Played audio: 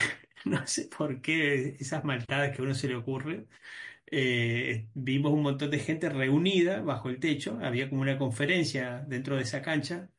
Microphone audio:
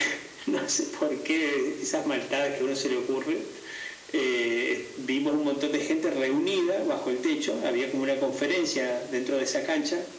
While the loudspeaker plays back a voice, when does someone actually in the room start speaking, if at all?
none

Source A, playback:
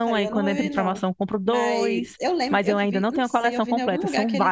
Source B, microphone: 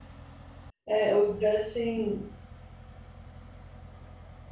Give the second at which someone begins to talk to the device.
1 s

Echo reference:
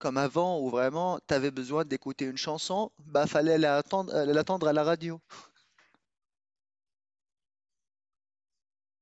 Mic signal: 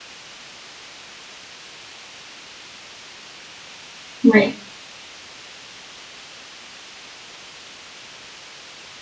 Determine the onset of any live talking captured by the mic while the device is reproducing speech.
4 s

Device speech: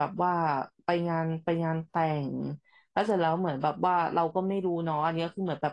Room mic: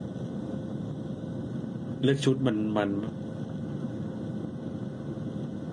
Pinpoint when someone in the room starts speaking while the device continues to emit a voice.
2 s

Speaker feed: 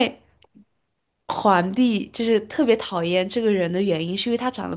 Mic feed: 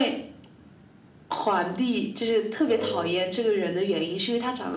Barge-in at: 3 s

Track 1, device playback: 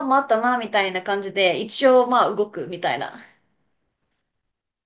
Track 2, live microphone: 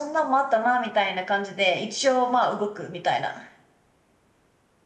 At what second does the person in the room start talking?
none

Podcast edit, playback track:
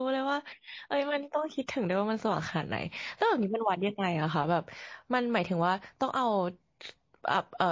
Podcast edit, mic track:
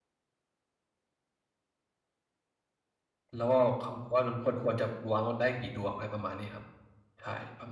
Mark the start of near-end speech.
3 s

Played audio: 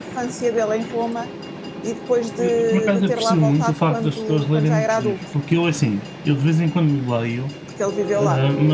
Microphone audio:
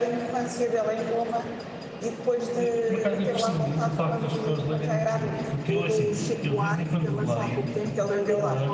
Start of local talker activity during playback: 6 s

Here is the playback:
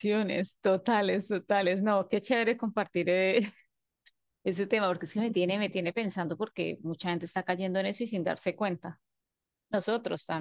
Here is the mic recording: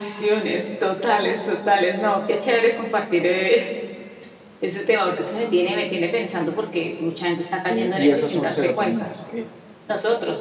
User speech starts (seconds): 8 s

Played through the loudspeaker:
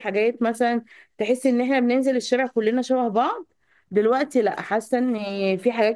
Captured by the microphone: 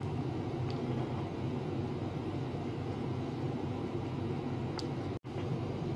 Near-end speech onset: none

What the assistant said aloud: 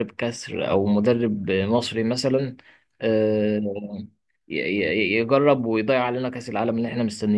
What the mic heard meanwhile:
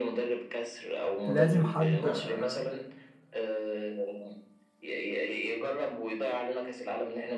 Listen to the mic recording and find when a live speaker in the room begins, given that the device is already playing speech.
1 s

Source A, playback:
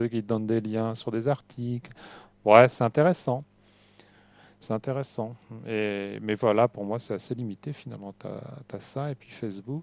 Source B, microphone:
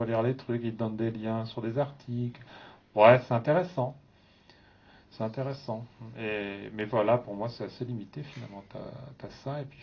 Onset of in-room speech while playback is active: none

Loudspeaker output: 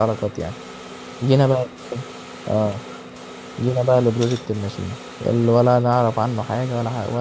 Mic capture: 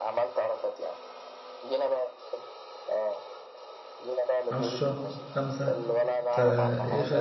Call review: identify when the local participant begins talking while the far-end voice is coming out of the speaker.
5 s

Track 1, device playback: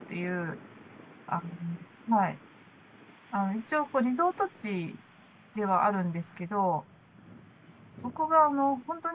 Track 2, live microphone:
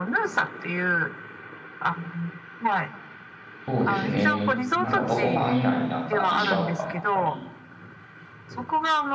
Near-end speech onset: 4 s

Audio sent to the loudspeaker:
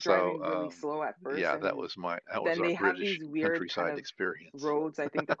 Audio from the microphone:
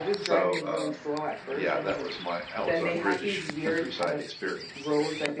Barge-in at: none

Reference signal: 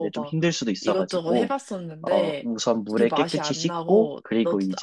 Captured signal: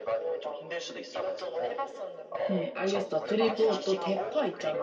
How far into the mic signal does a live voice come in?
3 s

